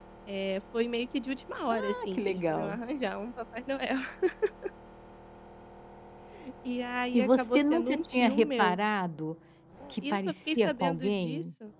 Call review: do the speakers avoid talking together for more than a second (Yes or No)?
No